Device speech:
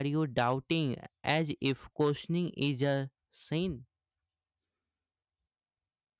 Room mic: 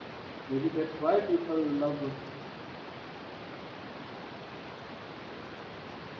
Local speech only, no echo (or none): Maybe that's why people love